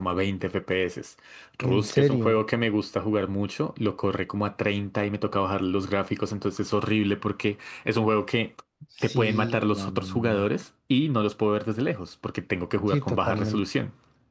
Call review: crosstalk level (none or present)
present